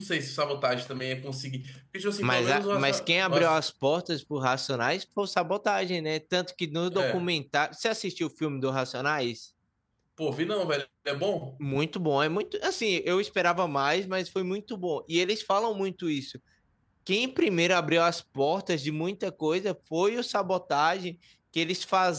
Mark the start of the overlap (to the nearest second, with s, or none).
2 s